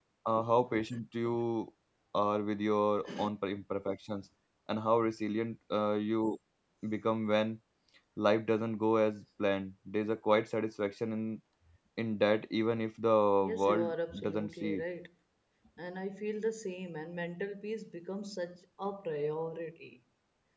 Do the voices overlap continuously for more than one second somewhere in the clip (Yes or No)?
Yes